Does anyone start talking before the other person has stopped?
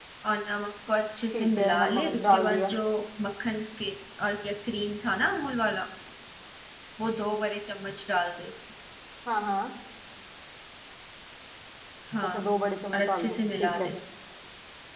Yes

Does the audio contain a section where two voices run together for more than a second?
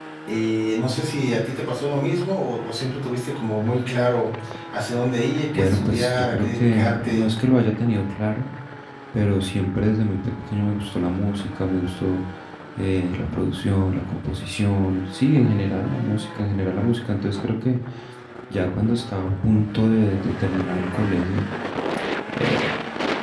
Yes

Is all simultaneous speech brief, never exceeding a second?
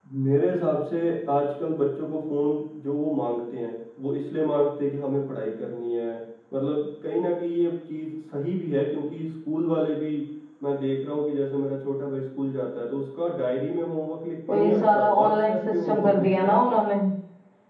No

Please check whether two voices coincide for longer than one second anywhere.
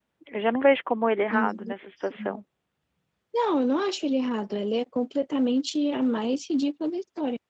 No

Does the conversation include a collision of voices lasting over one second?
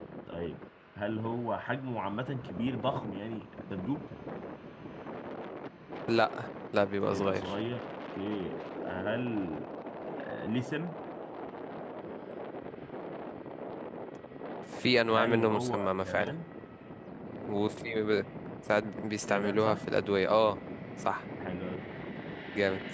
Yes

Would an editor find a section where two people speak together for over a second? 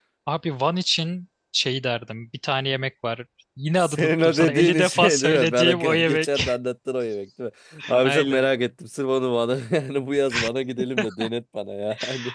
Yes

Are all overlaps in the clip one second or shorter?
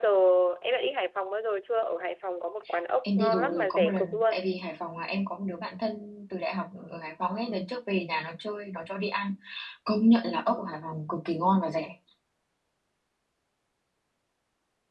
No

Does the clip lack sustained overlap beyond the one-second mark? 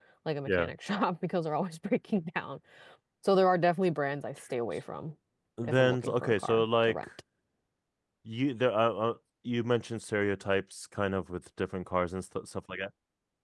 No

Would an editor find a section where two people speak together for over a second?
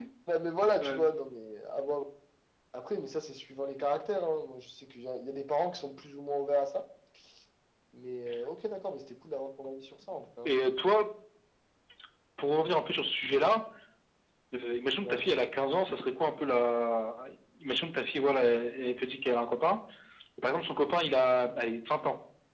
No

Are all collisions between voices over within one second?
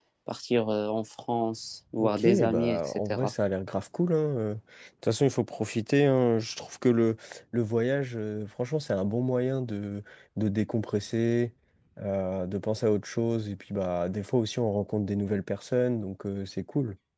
No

